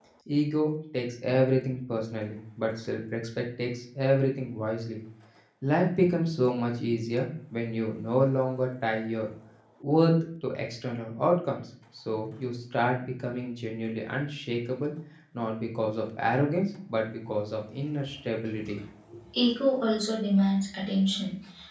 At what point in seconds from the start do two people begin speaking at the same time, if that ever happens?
none

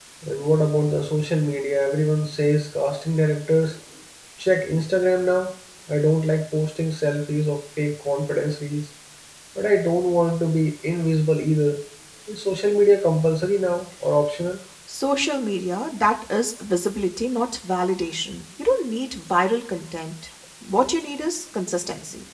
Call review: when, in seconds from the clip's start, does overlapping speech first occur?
none

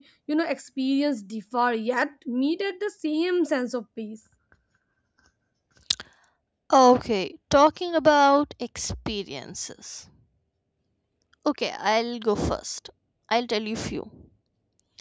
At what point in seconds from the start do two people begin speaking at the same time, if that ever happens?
none

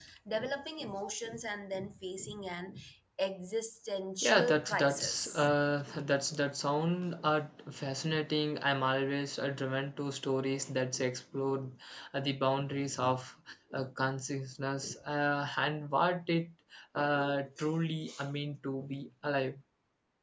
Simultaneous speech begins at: 4.2 s

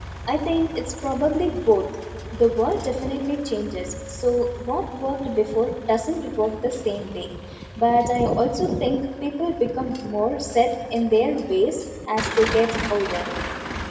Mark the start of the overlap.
none

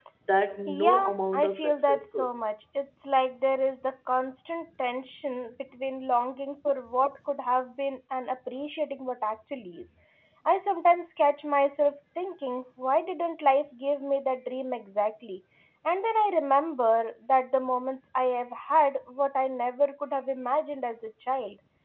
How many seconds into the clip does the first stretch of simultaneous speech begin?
0.7 s

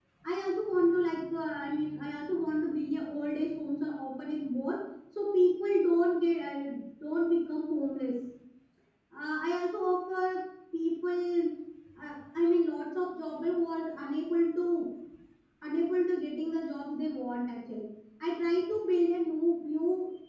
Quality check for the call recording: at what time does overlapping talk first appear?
none

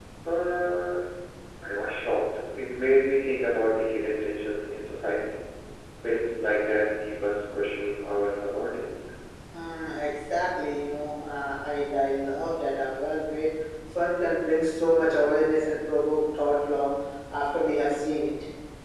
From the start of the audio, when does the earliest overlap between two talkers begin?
none

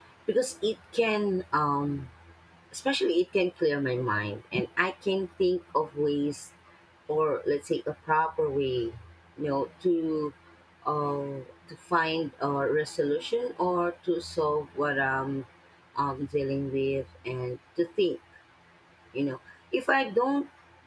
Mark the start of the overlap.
none

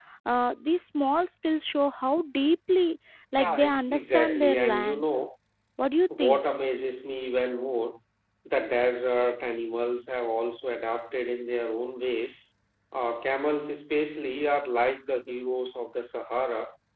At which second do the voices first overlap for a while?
3.4 s

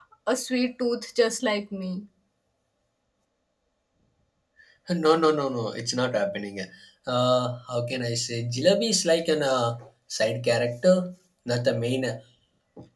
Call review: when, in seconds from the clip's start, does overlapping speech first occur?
none

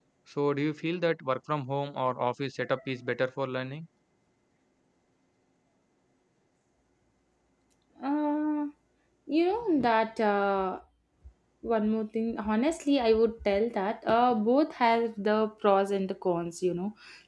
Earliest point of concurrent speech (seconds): none

